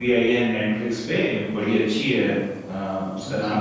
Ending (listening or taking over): listening